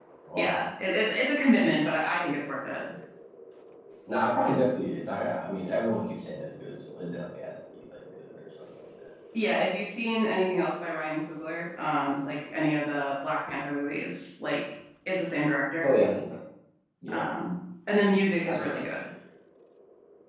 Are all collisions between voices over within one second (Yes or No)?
Yes